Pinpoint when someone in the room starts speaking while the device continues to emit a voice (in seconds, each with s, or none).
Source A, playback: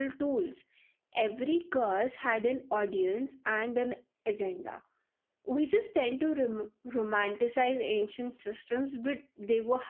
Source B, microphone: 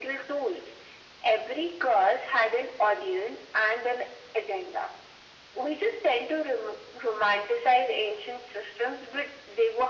none